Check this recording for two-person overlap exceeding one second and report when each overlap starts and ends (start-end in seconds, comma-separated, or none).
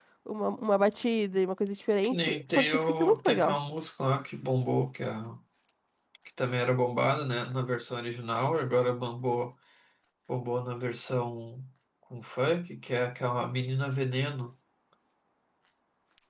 2.0-3.6